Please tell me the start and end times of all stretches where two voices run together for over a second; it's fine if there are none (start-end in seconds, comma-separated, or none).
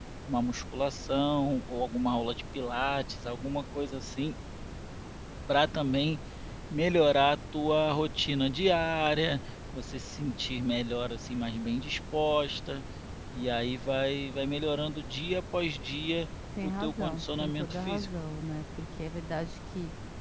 16.6-18.1